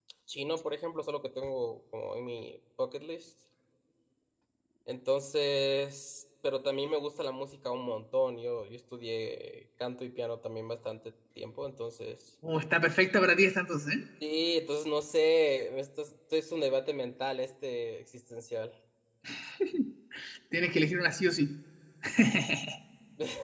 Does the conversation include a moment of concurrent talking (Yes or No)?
No